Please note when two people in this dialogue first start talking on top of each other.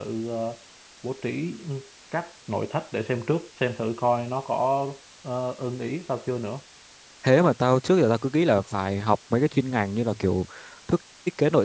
none

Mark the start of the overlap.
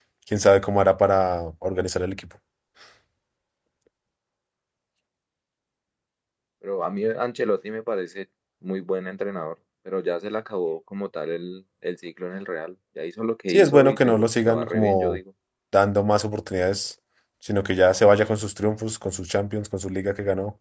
13.5 s

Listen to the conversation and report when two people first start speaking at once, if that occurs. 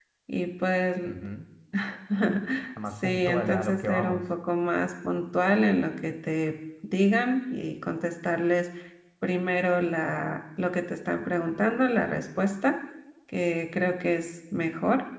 3.0 s

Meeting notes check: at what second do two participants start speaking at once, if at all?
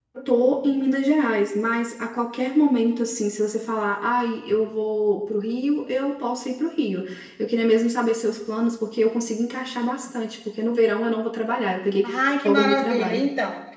12.0 s

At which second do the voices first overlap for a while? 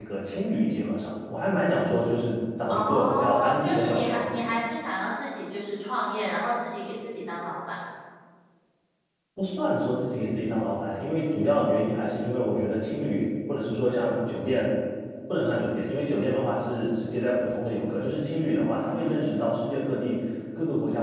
2.7 s

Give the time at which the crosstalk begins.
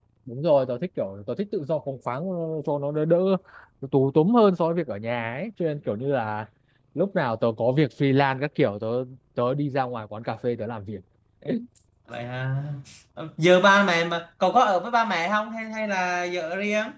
none

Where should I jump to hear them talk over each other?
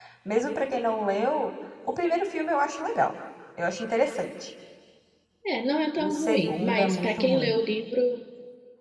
6.0 s

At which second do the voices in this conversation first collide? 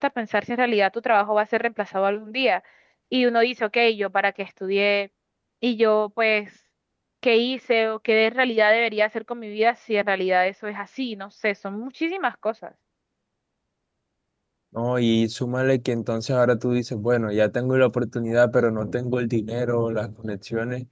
none

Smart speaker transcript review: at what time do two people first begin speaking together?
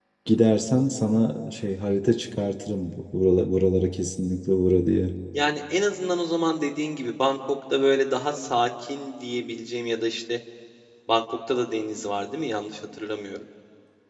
none

